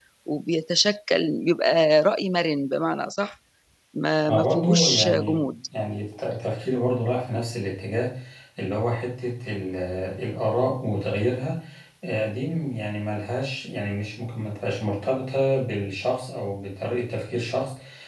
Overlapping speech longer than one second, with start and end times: 4.3-5.5

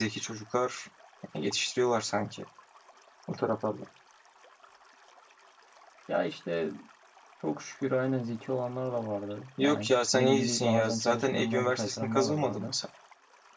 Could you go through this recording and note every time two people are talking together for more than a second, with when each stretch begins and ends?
9.6-12.7

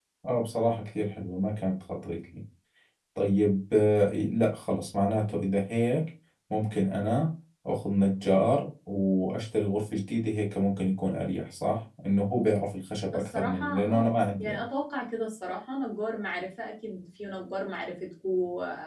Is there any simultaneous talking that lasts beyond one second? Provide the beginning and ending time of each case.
13.1-14.6

